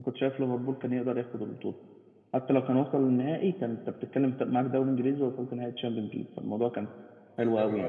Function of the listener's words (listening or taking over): listening